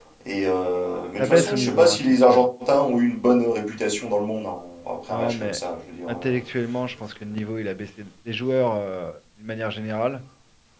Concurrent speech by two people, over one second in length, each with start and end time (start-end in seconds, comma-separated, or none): 1.2-2.4